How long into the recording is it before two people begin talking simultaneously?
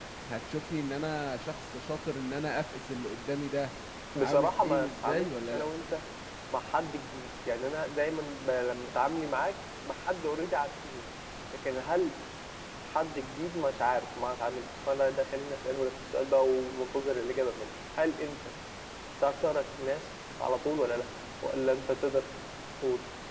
4.2 s

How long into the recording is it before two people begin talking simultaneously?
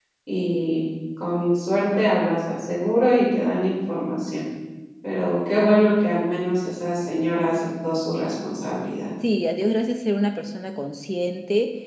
none

